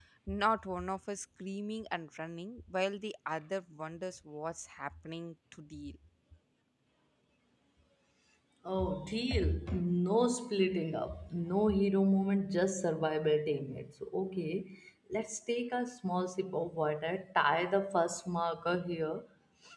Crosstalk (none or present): none